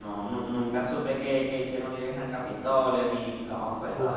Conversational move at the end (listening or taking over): taking over